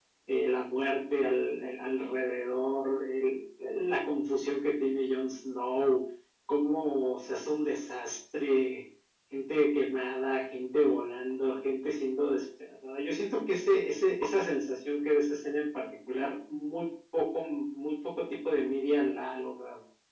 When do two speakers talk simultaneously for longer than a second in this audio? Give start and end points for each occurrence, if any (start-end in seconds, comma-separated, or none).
none